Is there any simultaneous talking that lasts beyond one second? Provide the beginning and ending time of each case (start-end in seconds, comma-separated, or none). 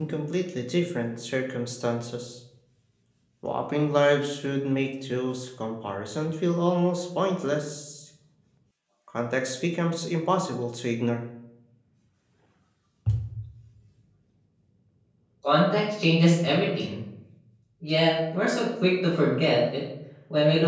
none